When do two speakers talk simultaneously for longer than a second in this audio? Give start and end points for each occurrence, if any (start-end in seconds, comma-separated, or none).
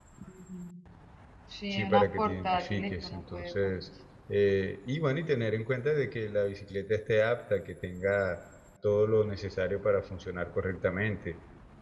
1.7-3.9